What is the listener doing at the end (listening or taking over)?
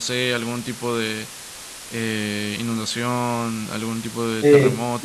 taking over